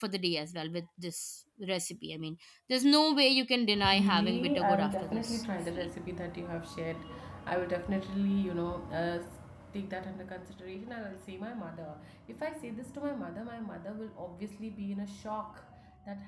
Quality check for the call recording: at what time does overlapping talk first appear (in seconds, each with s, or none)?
3.7 s